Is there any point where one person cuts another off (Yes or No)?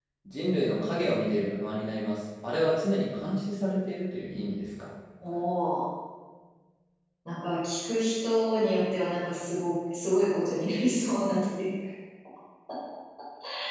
No